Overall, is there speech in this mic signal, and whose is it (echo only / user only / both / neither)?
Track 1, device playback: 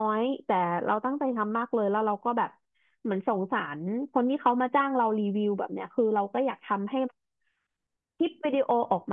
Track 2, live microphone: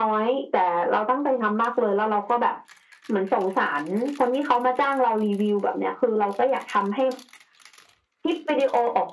echo only